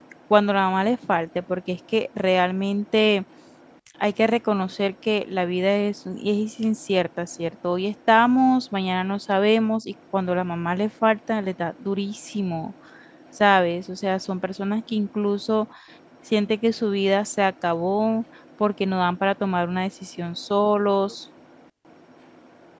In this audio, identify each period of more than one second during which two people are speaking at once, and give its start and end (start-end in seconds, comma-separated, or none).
none